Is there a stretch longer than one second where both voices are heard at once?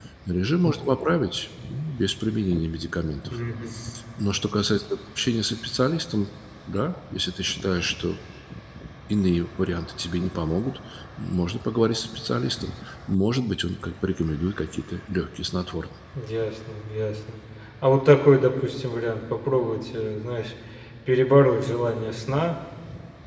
No

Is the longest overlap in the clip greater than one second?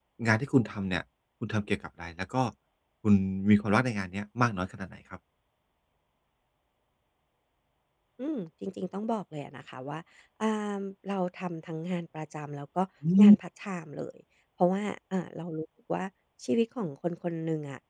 No

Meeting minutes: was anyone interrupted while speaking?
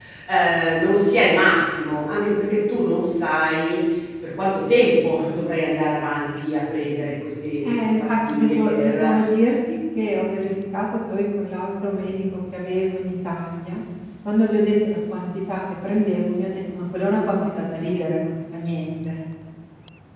Yes, from 7.6 s

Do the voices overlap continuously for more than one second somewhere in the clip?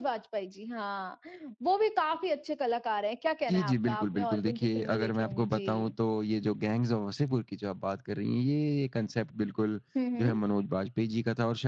Yes, from 3.5 s

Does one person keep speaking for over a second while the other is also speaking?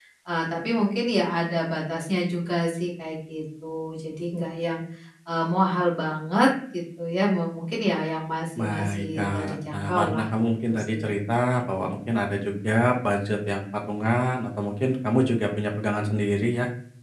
Yes, from 8.6 s

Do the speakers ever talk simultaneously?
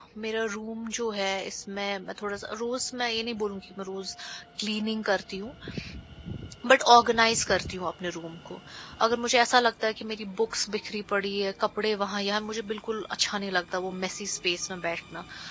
No

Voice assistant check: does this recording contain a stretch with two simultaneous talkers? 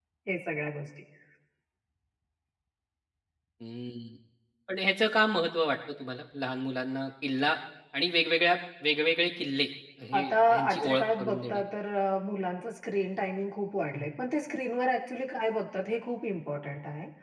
Yes, from 10.1 s

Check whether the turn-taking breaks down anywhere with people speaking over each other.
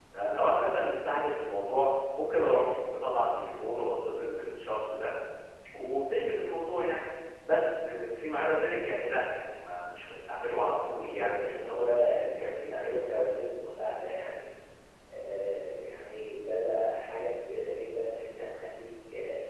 Yes, from 10.6 s

